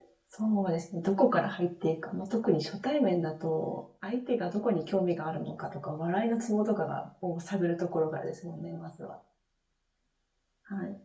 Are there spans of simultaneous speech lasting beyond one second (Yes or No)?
No